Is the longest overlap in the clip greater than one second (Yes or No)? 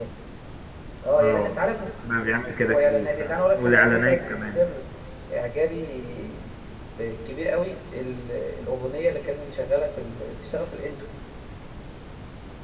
Yes